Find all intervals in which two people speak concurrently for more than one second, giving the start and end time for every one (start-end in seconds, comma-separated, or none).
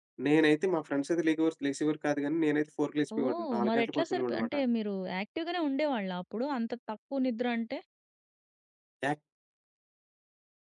3.2-4.5